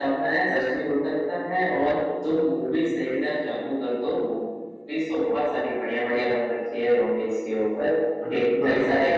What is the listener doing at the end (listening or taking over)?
listening